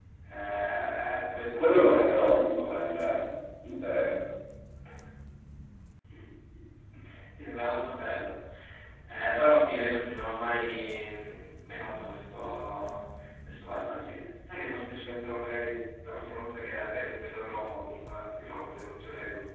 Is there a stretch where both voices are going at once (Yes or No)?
Yes